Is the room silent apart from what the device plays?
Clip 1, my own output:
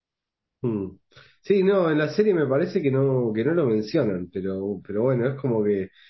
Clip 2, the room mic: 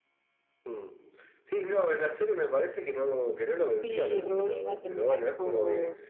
No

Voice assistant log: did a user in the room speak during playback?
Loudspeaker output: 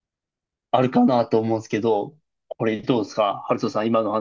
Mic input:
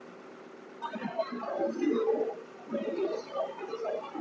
No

